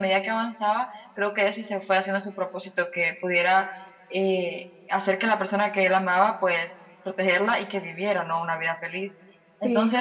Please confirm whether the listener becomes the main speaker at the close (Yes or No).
No